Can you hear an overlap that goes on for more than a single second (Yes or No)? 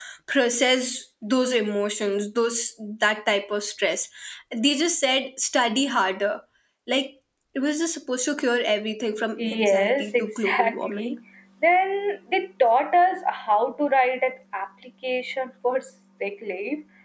Yes